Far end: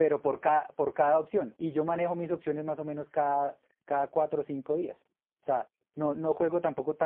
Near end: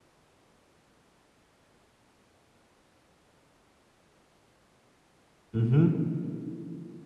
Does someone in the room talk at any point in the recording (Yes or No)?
Yes